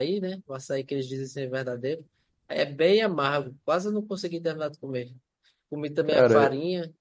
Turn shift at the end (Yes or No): No